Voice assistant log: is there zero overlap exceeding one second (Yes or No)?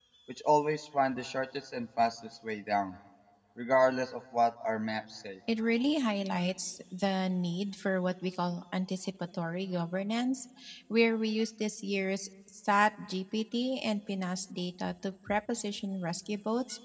Yes